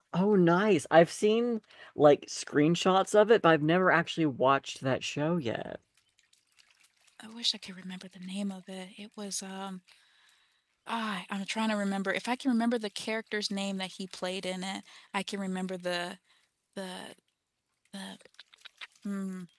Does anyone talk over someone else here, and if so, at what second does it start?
none

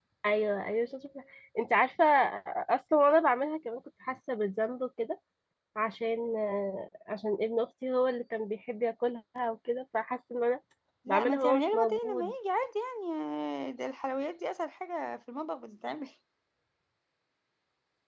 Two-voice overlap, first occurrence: 11.1 s

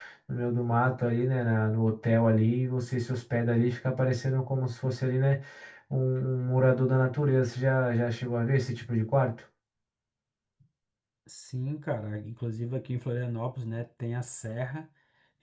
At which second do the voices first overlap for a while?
none

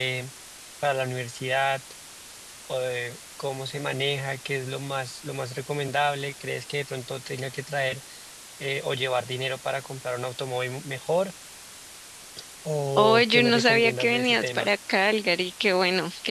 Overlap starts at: 13.0 s

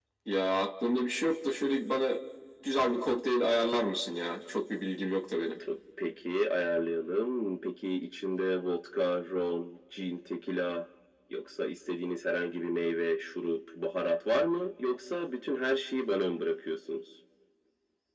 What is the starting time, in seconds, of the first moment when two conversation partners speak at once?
none

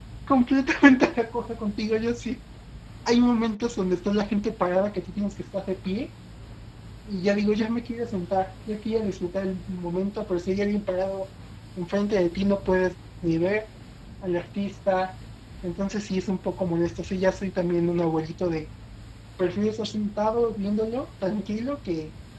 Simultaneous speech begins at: none

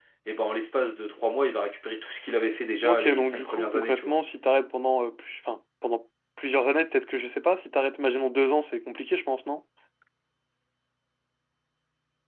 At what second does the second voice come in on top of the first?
2.8 s

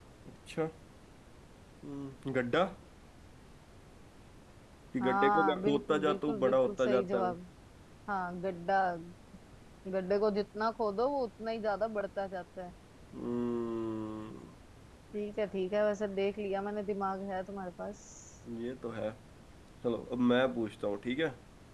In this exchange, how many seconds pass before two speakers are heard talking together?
5.0 s

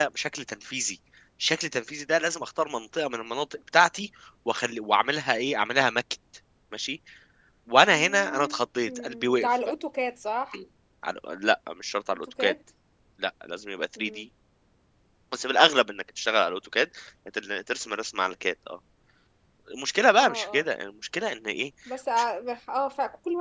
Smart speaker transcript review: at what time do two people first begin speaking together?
7.9 s

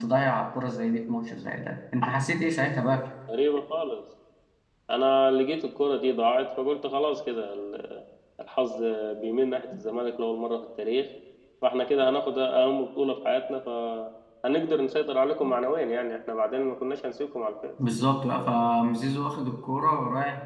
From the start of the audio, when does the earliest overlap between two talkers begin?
none

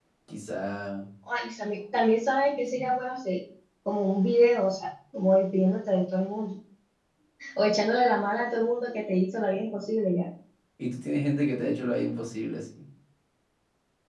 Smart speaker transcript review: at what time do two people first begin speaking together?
none

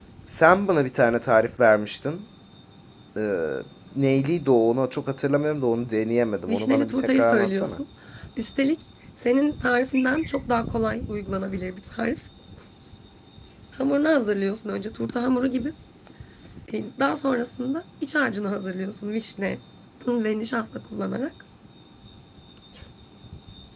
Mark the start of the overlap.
6.5 s

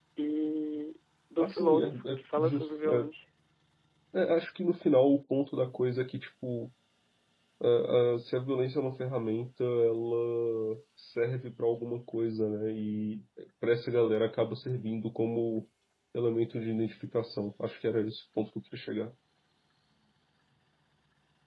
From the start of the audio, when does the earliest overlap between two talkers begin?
1.4 s

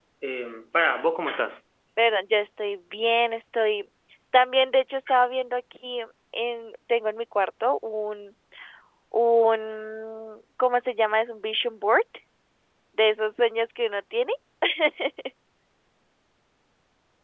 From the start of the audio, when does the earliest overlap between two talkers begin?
none

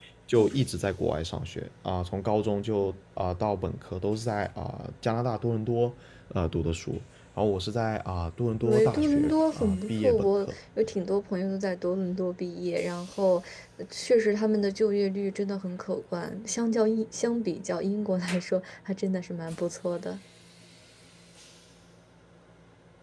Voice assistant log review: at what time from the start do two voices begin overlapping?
8.6 s

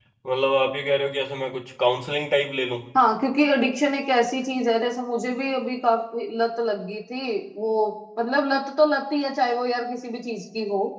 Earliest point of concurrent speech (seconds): none

